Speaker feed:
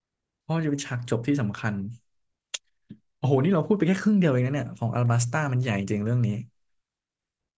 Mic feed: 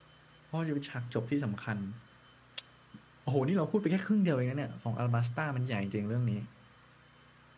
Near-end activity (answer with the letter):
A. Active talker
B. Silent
B